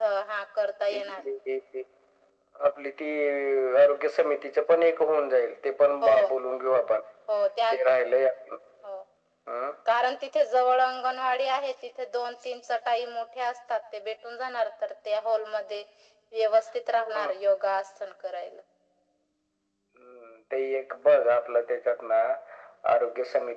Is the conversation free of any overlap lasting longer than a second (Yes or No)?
Yes